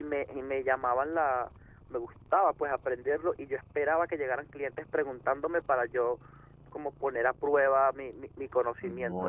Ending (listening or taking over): taking over